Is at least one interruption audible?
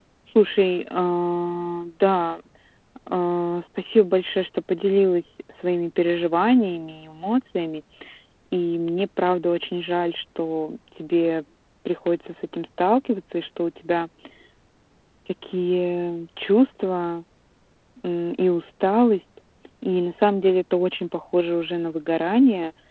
No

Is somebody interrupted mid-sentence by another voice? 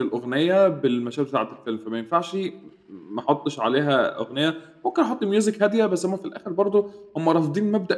No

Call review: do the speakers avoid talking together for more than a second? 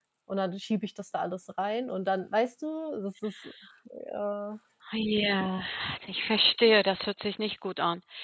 Yes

